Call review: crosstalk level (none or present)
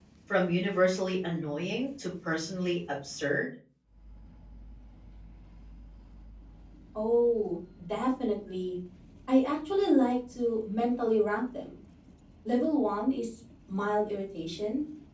none